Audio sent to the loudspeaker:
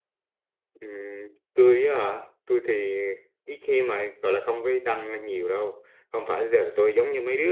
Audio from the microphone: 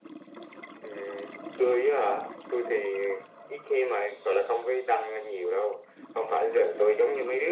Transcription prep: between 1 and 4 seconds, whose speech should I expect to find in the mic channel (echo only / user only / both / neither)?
echo only